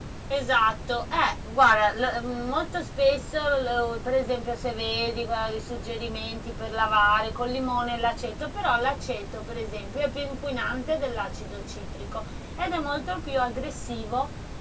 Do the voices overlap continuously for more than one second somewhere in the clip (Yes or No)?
No